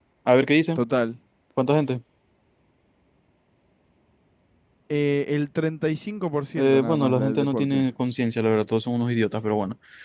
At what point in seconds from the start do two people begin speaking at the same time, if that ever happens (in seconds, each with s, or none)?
6.6 s